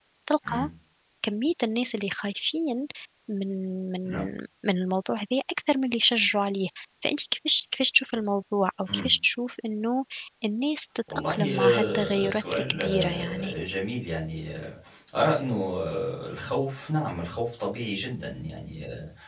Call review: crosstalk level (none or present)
present